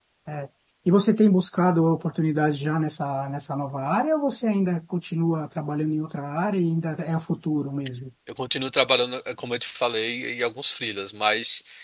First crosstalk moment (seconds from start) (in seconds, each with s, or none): none